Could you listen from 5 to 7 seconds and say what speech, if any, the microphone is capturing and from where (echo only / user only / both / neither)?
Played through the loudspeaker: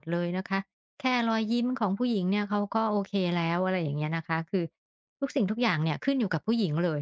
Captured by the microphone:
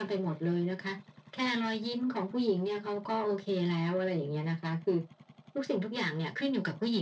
echo only